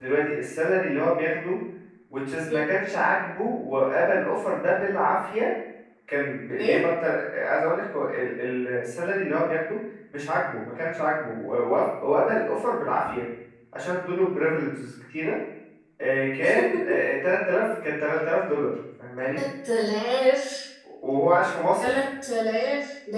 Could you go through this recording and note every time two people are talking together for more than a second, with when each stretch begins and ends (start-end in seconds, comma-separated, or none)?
none